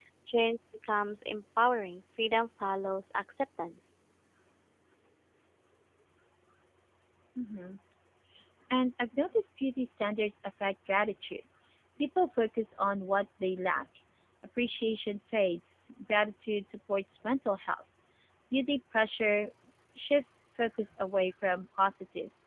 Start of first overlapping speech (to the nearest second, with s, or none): none